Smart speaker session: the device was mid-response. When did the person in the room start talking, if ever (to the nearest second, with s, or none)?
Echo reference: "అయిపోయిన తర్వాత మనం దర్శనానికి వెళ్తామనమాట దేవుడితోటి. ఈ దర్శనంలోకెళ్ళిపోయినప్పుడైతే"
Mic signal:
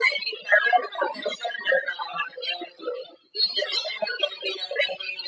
none